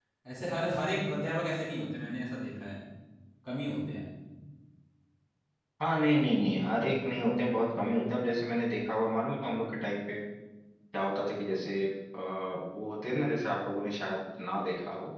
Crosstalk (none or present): none